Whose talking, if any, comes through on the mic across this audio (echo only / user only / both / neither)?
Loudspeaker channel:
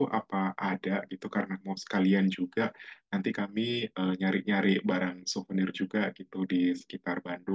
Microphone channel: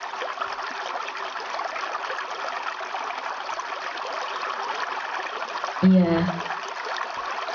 user only